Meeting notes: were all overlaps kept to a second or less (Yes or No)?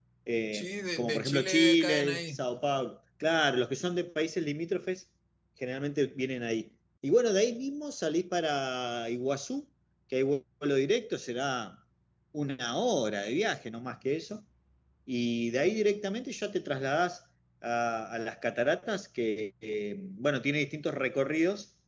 No